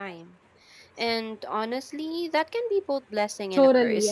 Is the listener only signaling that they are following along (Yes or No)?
No